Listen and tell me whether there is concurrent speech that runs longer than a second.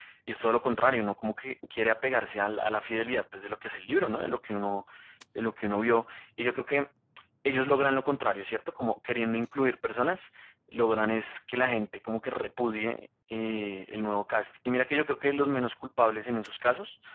No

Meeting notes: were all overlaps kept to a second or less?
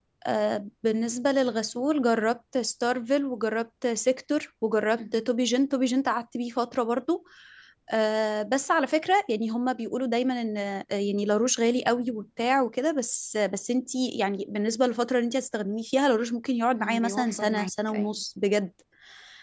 No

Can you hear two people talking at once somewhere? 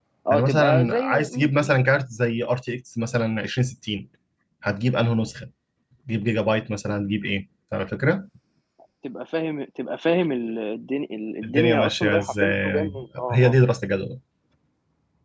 Yes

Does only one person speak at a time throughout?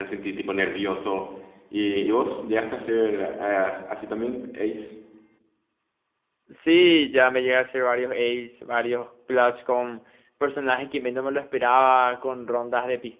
Yes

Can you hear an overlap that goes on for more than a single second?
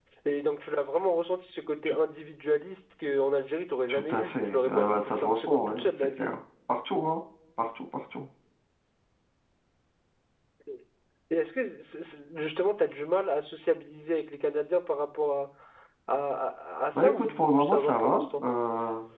Yes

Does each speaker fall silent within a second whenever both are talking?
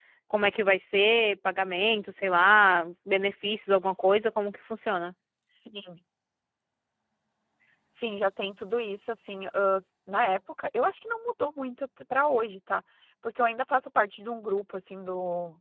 Yes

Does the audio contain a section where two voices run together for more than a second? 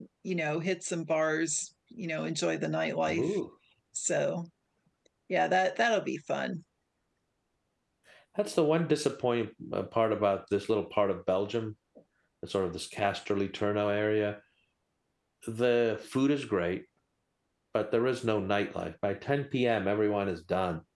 No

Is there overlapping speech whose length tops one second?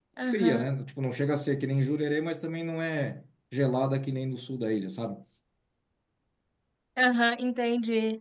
No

